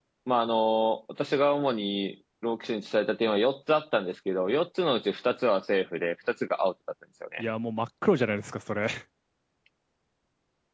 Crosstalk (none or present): none